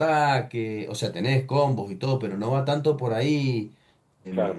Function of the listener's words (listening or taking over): taking over